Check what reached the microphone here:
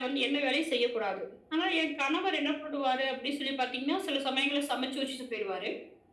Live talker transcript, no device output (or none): none